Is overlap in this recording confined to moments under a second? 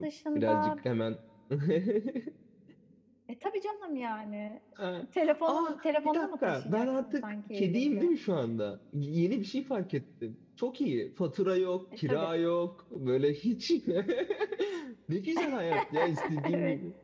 No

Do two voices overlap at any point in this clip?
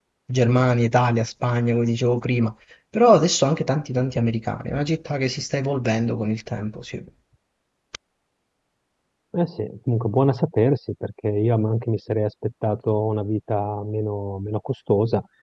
No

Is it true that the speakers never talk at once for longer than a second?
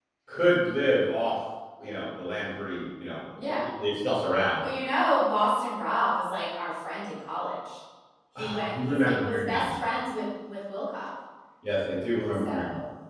No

